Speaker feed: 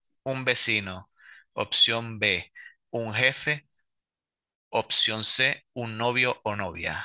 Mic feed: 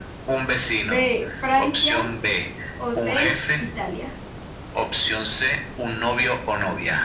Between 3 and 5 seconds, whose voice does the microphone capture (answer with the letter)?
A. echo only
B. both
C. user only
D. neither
B